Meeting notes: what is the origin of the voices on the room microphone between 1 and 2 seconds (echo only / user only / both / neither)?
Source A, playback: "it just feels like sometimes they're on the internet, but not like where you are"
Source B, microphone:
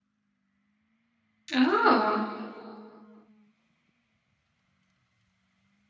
user only